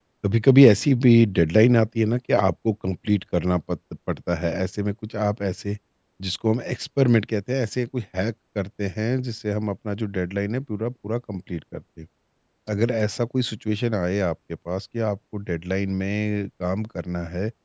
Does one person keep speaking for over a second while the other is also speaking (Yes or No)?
No